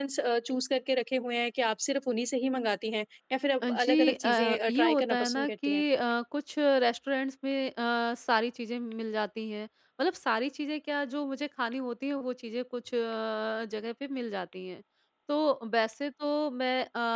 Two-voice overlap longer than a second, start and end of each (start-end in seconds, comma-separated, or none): 3.7-5.8